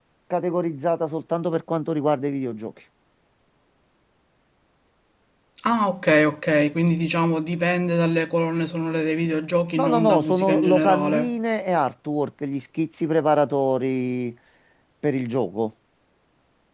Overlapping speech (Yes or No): Yes